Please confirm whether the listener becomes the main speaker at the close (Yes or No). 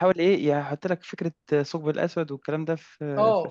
Yes